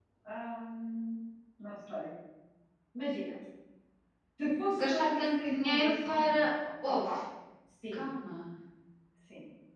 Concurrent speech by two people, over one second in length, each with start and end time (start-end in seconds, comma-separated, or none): 4.7-6.4